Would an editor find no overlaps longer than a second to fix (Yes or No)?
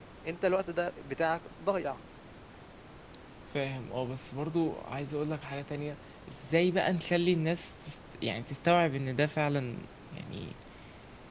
Yes